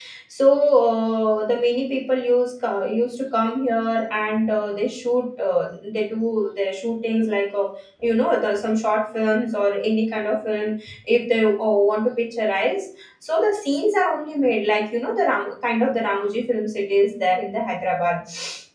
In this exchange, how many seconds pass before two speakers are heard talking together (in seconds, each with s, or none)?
none